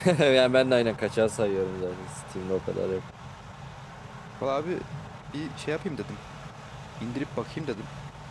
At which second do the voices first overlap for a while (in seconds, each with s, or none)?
none